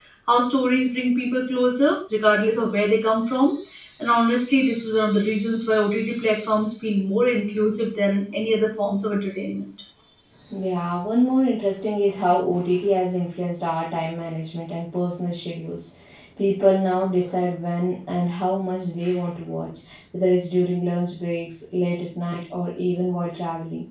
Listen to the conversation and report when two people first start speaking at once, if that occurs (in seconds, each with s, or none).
none